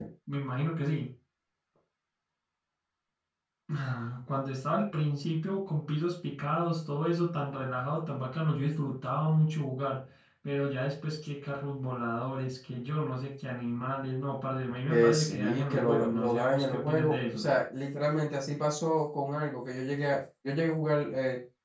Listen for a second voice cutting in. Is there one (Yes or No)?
Yes